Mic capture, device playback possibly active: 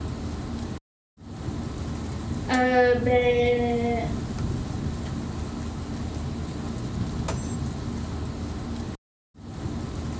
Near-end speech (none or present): present